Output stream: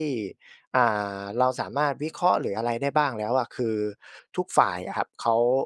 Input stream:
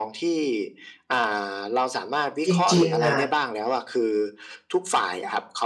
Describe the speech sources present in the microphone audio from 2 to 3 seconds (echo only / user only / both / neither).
both